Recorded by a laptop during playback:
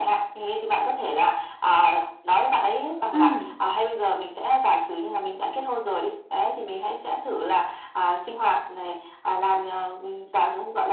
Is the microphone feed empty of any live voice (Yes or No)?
No